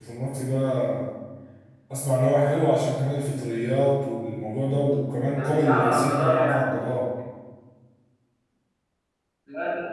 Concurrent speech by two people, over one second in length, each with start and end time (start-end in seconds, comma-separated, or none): 5.3-6.7